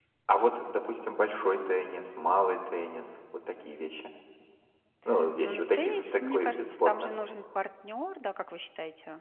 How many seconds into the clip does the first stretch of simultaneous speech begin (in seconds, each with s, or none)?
5.4 s